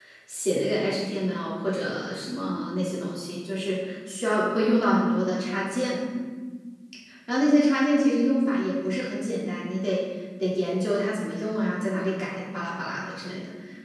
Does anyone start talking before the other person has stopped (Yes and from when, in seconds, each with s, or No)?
No